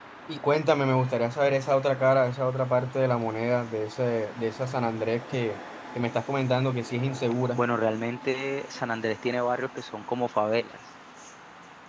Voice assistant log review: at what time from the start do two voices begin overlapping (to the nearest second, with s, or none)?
none